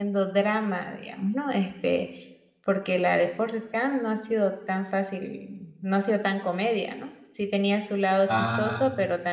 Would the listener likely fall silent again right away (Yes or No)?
Yes